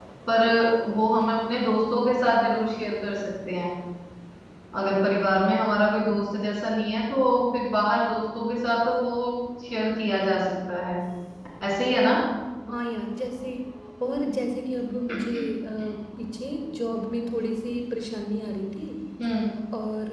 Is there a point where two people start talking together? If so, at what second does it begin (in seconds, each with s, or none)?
none